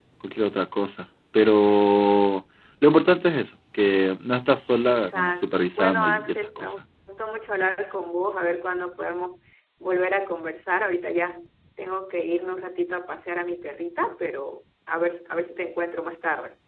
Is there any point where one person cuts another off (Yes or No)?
Yes